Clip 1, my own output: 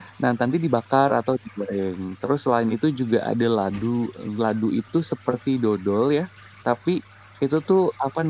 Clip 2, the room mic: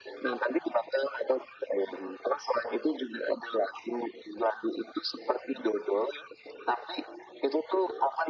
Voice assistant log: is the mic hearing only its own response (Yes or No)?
Yes